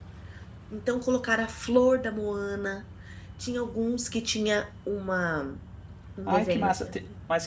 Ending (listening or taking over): taking over